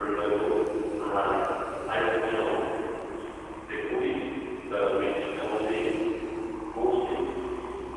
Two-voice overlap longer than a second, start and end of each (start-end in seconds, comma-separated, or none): none